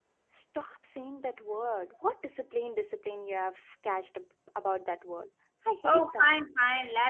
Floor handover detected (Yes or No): Yes